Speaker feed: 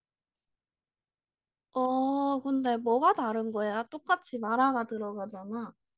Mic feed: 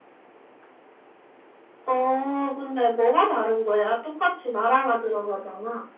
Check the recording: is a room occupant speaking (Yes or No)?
No